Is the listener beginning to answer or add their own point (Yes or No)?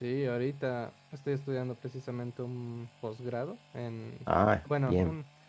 No